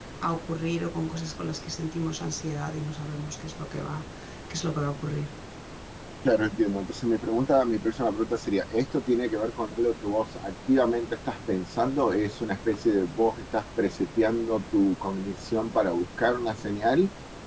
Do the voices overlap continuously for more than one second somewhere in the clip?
No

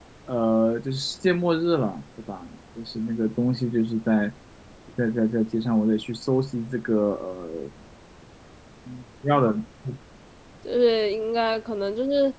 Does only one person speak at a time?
Yes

